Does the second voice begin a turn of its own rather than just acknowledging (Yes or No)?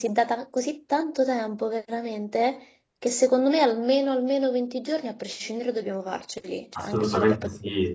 Yes